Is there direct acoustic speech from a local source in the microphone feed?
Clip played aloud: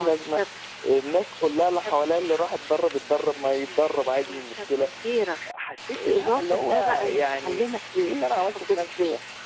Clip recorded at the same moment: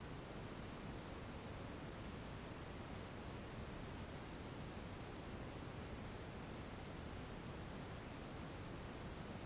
No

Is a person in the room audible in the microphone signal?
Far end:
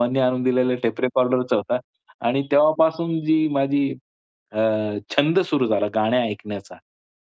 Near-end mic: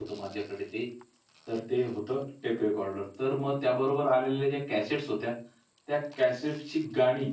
Yes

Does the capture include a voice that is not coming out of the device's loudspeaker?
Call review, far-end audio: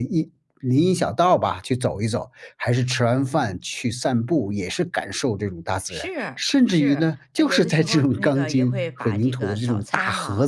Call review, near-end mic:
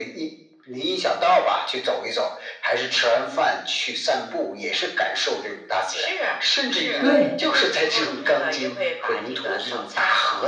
Yes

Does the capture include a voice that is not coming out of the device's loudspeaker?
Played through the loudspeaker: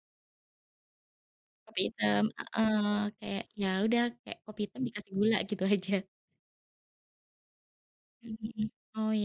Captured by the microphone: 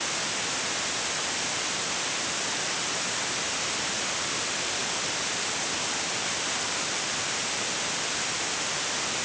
No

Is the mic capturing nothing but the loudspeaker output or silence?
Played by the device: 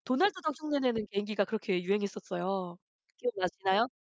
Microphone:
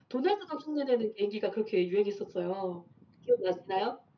Yes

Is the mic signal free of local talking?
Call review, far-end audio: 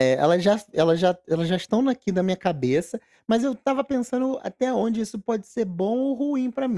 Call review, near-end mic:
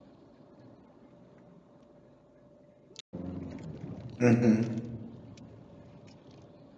No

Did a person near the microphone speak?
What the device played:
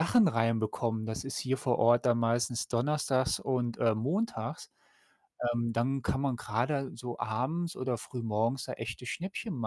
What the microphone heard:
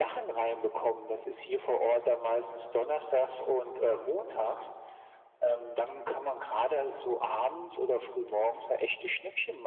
No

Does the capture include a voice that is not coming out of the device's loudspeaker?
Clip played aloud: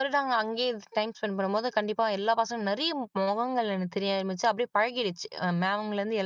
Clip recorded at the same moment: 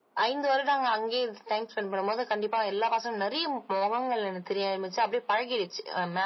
No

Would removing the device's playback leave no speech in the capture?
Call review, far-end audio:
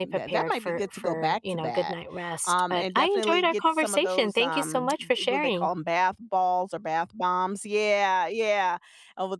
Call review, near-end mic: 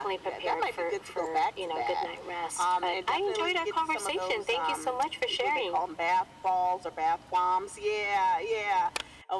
Yes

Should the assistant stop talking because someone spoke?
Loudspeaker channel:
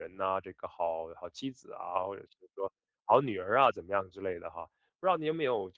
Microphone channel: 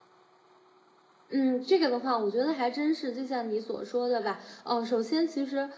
Yes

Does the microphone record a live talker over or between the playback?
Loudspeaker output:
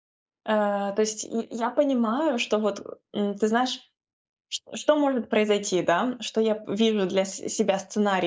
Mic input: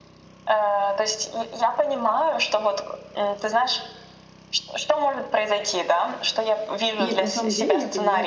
Yes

